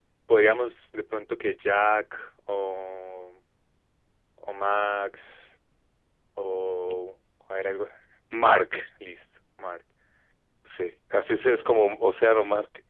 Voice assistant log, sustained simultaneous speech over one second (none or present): none